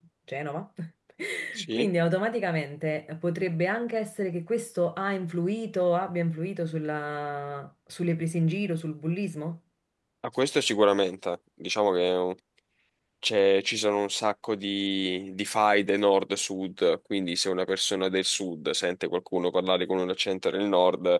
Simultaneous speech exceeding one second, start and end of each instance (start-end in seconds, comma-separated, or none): none